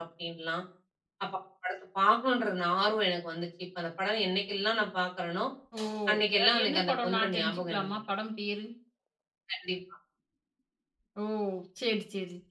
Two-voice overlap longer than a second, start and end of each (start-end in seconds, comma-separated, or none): 6.4-8.0